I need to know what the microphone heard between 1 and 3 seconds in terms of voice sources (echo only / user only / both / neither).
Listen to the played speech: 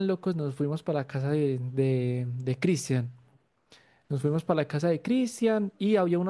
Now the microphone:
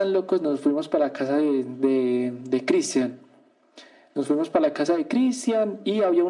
echo only